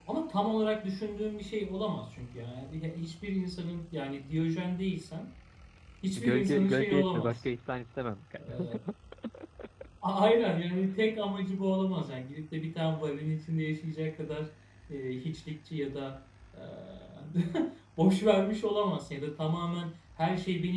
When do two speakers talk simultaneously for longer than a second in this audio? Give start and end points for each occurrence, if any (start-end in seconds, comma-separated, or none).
6.2-7.4